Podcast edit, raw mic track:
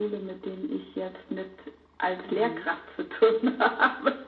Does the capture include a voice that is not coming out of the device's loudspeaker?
Yes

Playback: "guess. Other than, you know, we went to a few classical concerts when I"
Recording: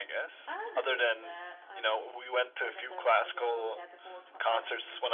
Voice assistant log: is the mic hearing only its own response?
No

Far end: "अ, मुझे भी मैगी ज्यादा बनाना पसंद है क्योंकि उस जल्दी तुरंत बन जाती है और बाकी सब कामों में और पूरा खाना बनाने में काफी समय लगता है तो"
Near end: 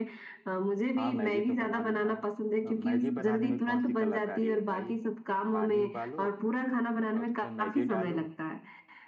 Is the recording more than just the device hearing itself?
Yes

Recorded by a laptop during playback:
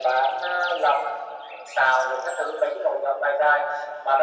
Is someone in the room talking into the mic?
No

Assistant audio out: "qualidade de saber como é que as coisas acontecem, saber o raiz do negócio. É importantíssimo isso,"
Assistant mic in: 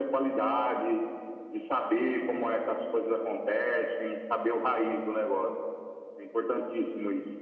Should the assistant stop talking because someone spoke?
No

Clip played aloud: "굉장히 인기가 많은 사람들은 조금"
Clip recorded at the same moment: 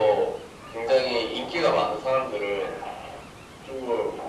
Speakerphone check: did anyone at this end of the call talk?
No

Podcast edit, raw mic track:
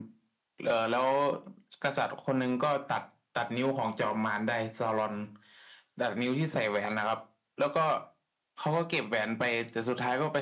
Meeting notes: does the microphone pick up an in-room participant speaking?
No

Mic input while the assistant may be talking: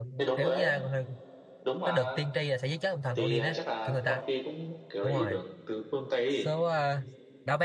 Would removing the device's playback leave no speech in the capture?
No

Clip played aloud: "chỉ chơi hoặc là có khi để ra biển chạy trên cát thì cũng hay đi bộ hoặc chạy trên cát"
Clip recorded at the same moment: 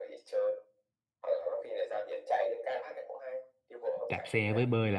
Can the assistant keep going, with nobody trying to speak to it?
No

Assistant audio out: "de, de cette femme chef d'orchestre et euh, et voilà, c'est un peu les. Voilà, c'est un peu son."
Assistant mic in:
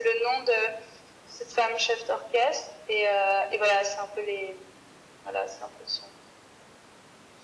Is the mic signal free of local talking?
Yes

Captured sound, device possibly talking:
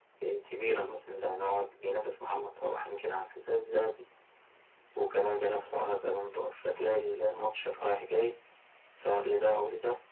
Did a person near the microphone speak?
No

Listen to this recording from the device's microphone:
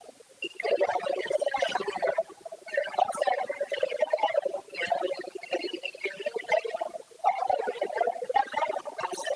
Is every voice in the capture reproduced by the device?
Yes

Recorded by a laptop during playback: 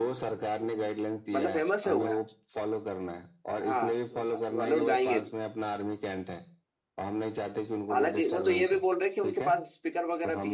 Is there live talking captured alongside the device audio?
Yes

